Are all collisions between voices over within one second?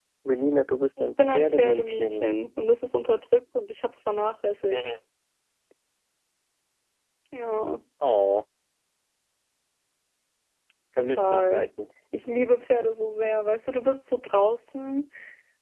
No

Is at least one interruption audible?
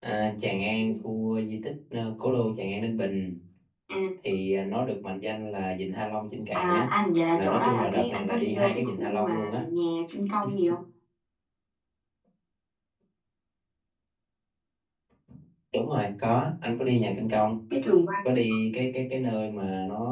Yes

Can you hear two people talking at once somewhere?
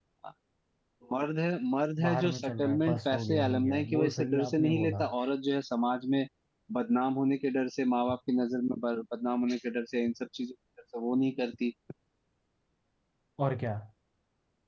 Yes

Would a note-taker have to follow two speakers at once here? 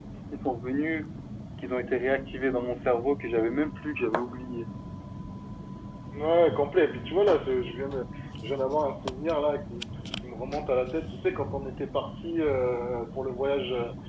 No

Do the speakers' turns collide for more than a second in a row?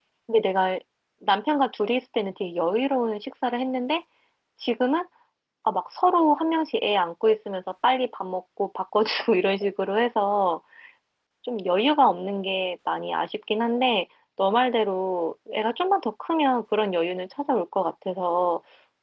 No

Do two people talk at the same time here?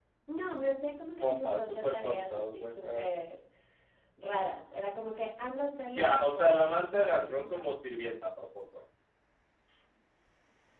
Yes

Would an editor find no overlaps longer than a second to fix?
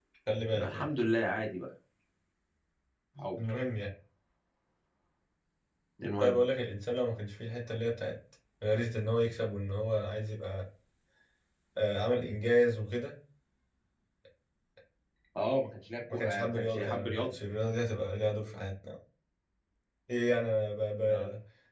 No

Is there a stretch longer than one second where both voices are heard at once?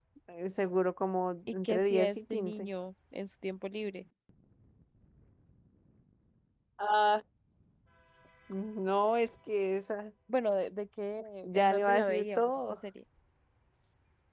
Yes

